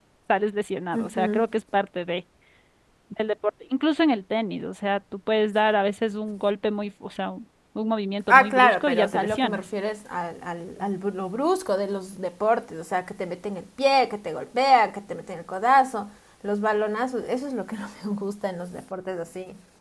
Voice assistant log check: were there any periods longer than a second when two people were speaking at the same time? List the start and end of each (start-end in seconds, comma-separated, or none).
8.3-9.6